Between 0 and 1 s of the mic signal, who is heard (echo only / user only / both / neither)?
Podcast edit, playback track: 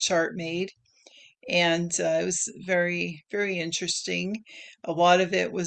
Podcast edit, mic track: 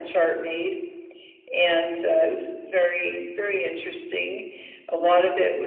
echo only